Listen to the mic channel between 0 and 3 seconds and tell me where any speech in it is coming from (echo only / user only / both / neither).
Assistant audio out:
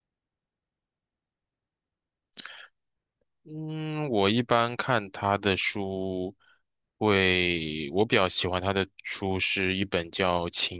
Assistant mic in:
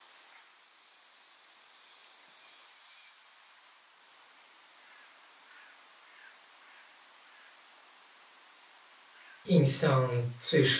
neither